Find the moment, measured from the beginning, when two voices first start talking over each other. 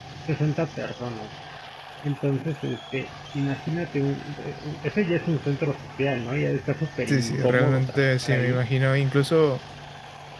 7.1 s

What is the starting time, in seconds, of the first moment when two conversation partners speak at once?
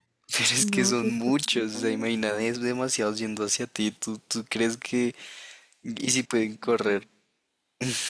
0.6 s

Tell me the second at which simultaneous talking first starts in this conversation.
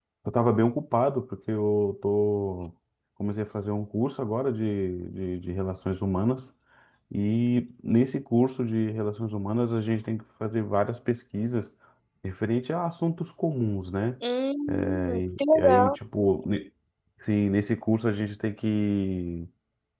14.7 s

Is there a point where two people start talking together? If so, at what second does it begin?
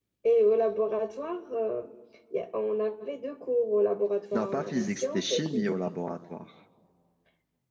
4.3 s

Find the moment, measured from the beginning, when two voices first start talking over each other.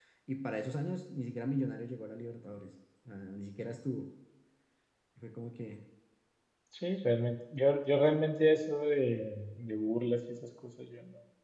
none

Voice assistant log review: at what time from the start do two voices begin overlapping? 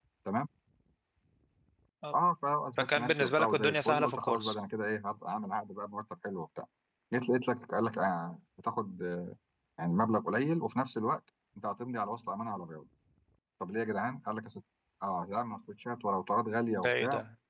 2.8 s

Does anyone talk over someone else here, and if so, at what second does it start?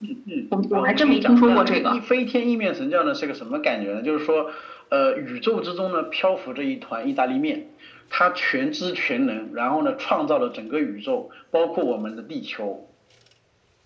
0.7 s

